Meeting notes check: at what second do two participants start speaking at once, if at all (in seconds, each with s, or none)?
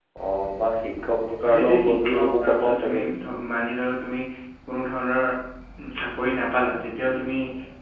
1.4 s